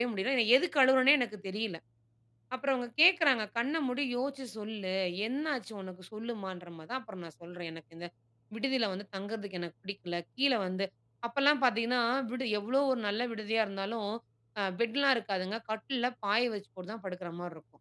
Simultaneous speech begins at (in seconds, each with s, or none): none